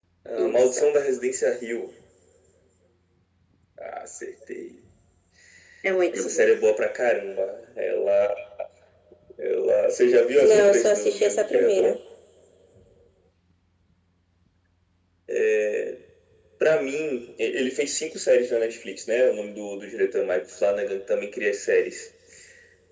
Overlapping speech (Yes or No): Yes